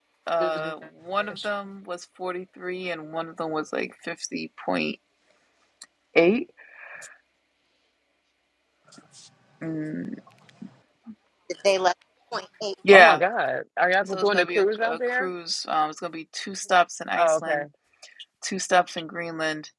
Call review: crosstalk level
present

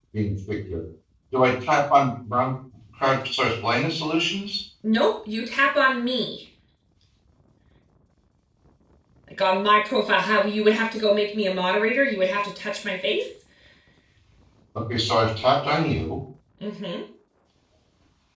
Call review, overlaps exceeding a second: none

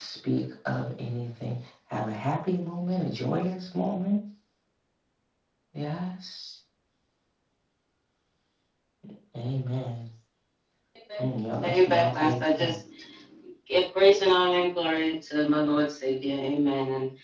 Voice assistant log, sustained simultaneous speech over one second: present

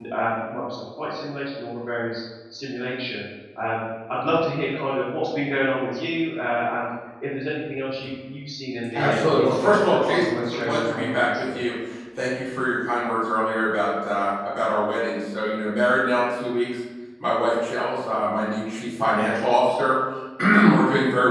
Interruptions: present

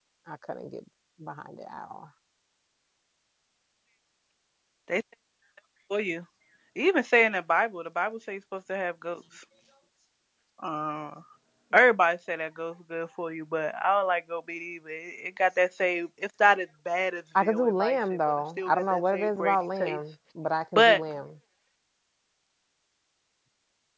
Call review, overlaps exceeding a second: present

